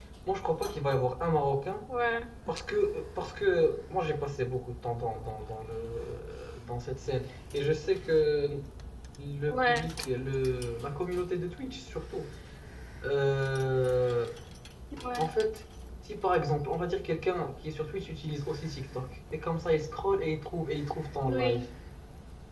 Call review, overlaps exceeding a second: none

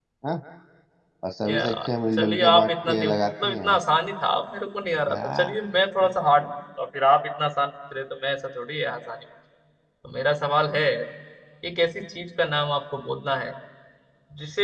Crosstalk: present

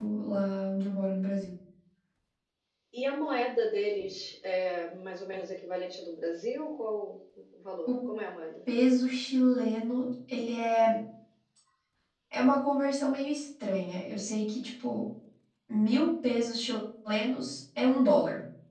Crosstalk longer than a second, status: none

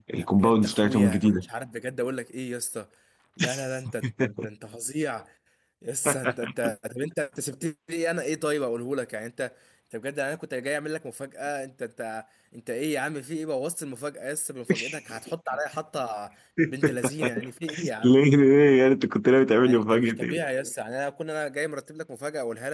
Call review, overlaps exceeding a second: present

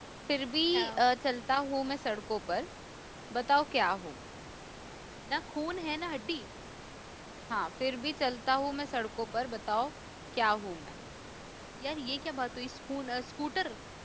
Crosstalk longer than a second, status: none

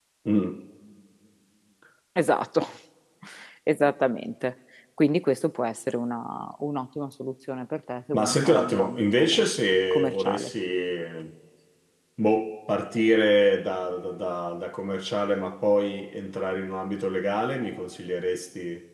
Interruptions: present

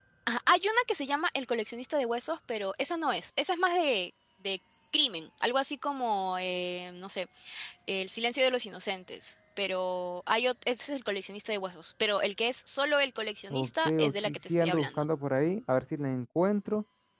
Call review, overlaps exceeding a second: present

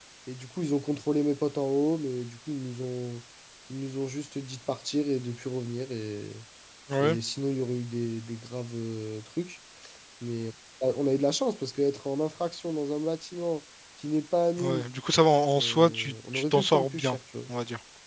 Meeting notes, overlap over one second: present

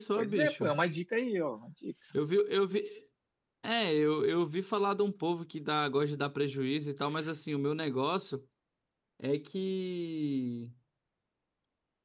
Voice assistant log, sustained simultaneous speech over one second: none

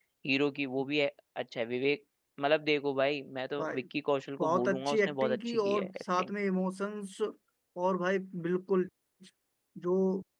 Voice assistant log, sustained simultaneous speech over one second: present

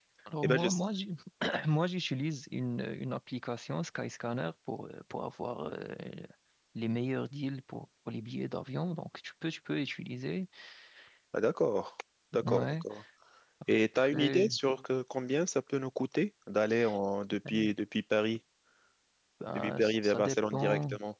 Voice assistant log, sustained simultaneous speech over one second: present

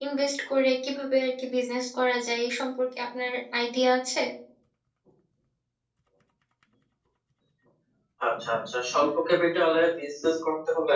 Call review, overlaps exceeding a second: none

